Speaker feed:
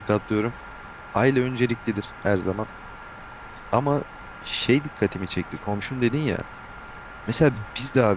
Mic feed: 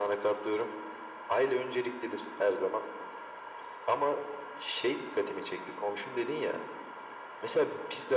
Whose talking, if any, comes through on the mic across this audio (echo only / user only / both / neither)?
echo only